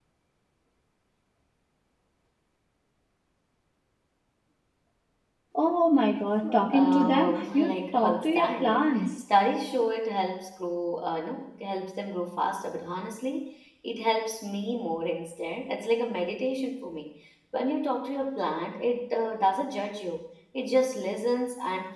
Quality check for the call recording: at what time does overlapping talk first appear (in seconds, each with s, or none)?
6.7 s